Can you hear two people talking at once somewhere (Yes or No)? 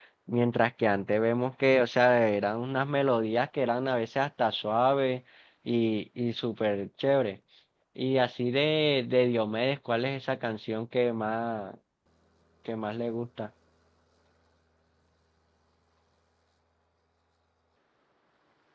No